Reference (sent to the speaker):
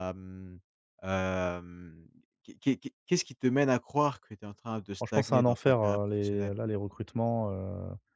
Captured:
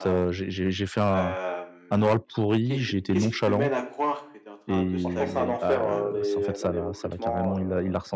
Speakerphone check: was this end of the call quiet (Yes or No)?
No